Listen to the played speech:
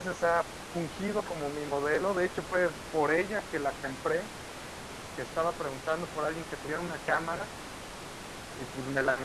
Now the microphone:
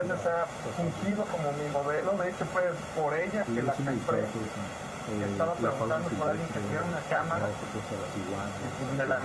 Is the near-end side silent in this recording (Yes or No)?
No